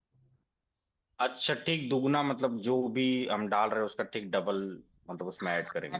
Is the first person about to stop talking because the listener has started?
Yes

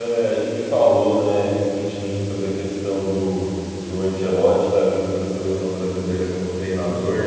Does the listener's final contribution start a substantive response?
No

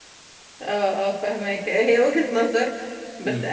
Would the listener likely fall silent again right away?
Yes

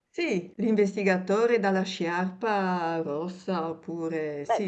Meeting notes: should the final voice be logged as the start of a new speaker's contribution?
Yes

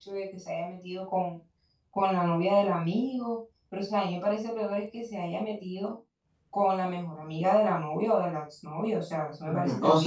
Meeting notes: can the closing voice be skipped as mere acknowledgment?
No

